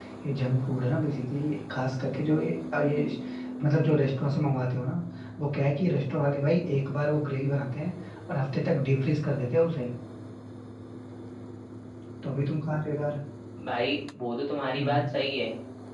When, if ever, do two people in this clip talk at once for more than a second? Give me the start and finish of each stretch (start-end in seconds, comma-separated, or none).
none